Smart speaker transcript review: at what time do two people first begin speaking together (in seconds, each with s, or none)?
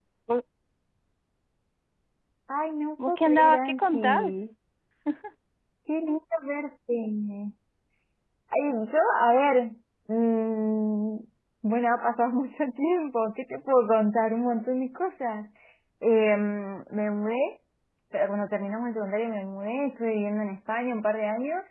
3.1 s